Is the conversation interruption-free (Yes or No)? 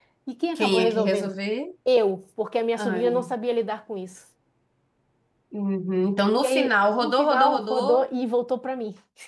No